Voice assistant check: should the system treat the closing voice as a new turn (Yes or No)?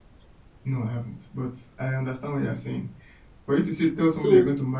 No